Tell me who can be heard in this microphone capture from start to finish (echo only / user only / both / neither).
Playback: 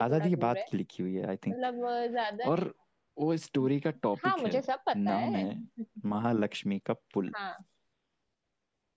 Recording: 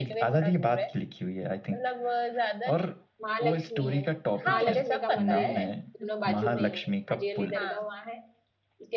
both